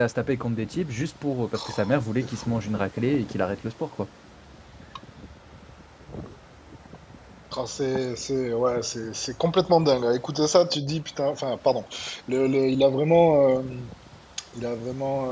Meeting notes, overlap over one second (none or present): none